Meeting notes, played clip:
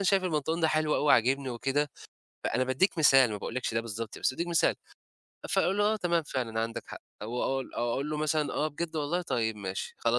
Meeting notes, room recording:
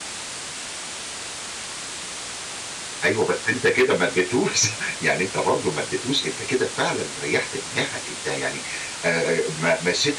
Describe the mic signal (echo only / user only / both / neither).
user only